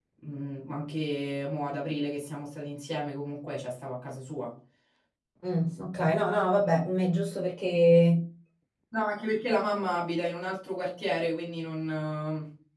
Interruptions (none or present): none